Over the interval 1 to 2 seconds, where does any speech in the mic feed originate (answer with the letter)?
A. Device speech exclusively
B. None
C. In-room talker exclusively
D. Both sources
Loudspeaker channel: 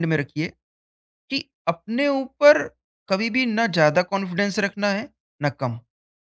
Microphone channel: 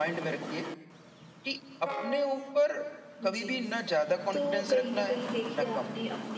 A